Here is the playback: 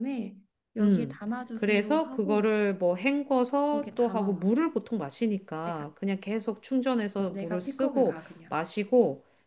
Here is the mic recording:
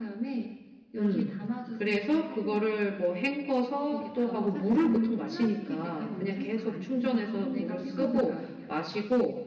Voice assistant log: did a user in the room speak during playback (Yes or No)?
Yes